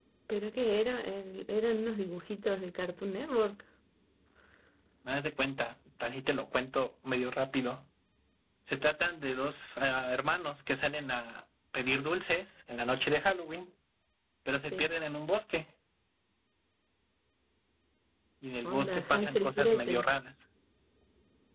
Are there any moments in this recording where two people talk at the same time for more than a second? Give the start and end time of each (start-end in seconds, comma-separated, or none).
18.6-20.1